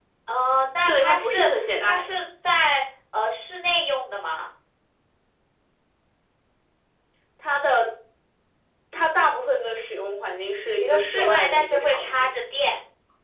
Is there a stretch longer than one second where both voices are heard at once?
Yes, from 0.9 s

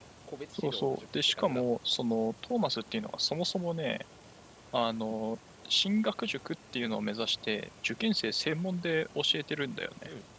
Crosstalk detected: Yes, from 0.5 s

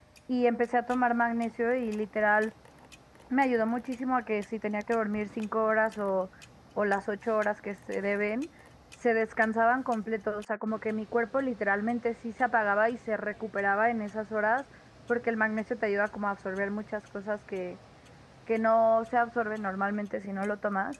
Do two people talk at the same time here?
No

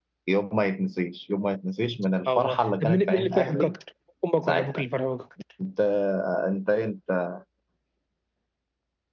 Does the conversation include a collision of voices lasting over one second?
Yes, from 2.3 s

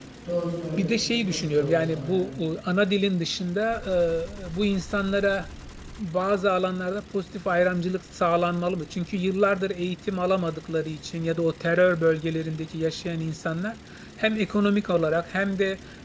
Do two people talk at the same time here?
Yes, from 0.8 s

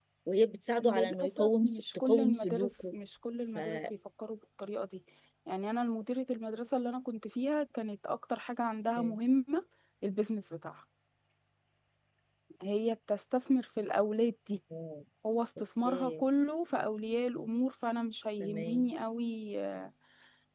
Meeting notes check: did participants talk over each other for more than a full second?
Yes, from 0.8 s

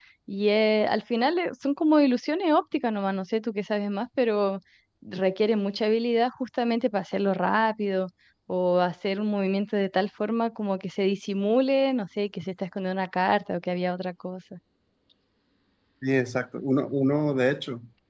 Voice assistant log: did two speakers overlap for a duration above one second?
No

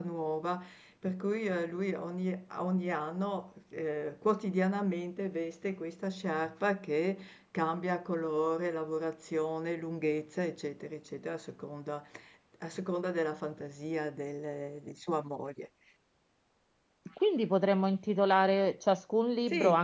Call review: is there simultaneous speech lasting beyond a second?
No

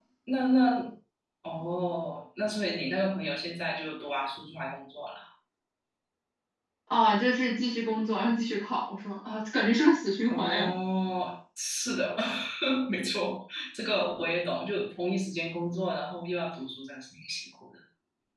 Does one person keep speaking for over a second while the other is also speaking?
No

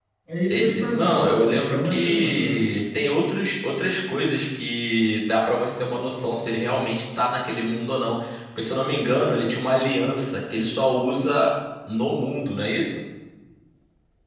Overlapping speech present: Yes, from 0.5 s

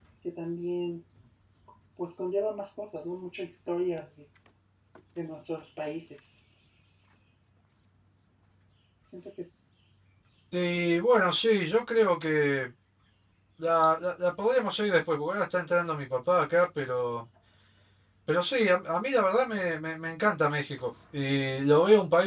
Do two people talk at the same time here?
No

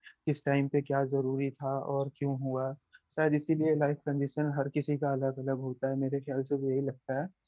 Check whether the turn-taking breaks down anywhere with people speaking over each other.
No

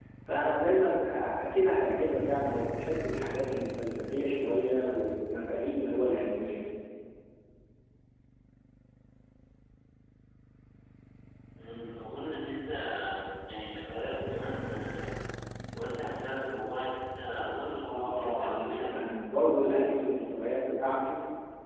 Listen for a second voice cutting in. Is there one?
Yes, from 17.8 s

